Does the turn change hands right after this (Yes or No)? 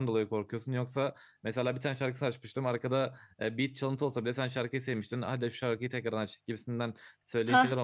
No